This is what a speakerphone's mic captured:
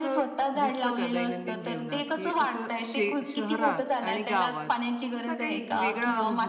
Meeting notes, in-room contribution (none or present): present